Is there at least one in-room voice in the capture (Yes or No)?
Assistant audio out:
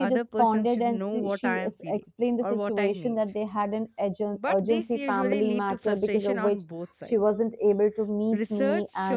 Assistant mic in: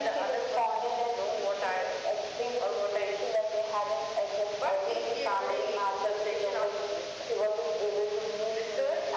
No